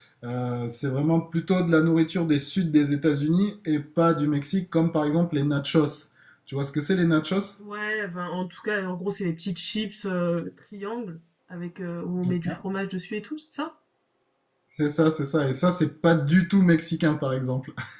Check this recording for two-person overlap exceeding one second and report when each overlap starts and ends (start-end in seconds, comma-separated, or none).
none